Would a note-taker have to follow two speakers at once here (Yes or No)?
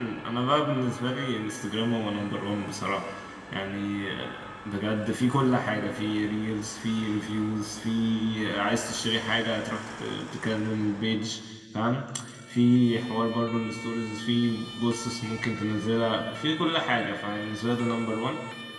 No